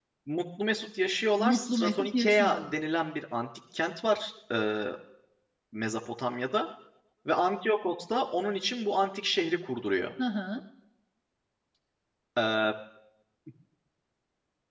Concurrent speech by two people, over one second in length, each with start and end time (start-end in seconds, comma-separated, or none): 1.4-2.8